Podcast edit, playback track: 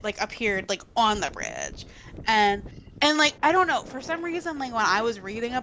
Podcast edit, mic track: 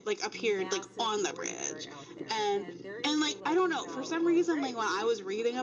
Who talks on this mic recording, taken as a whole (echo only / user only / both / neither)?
both